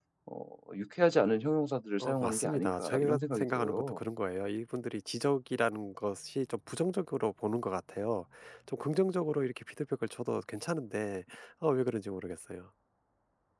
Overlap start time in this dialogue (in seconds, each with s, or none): 2.0 s